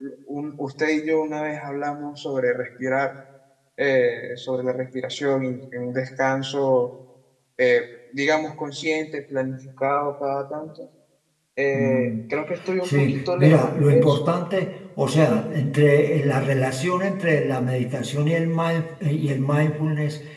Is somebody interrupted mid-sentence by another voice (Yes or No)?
Yes